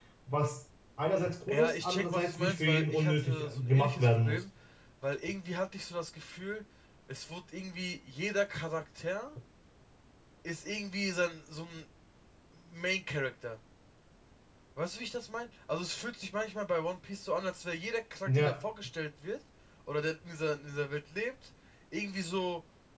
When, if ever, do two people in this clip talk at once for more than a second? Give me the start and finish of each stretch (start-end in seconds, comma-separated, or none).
1.5-4.4